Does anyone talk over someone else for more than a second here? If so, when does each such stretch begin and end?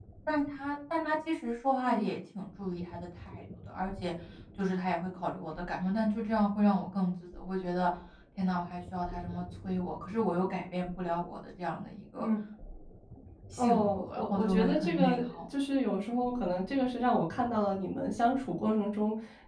13.6-15.4

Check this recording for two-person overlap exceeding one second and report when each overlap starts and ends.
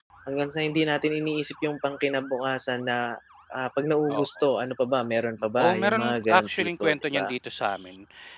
5.6-7.3

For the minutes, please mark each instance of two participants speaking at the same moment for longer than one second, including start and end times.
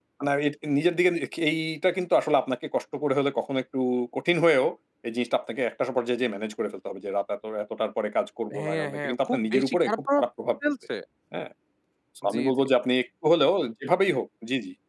8.6-10.2

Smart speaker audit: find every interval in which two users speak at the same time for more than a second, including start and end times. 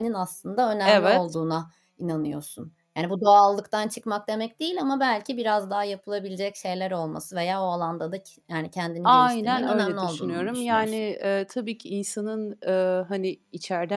9.1-11.0

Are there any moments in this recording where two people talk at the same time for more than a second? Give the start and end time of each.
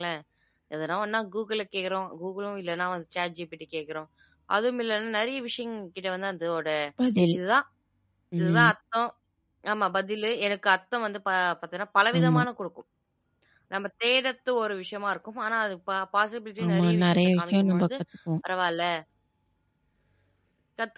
16.7-17.9

